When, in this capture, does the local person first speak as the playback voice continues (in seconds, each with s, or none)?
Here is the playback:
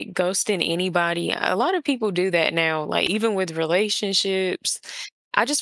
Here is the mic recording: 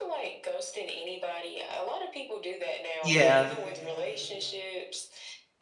3.0 s